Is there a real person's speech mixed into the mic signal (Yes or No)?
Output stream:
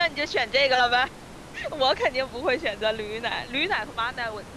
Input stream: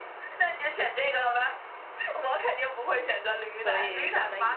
Yes